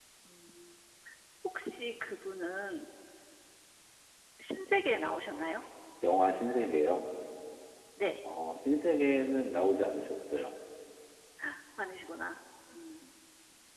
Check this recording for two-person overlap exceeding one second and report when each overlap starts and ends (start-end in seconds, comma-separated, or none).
none